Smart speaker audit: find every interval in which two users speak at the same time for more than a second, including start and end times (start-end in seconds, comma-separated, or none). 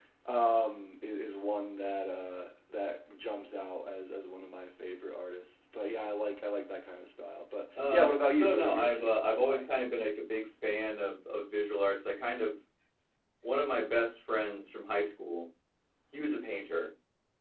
7.9-9.6